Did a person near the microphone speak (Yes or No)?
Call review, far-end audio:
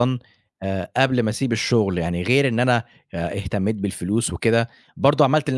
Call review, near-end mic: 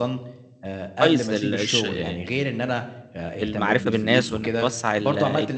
Yes